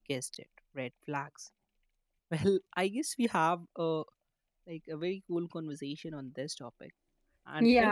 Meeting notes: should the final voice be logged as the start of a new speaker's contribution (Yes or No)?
Yes